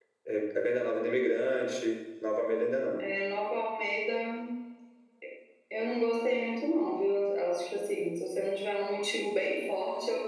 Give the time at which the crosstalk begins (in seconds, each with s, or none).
none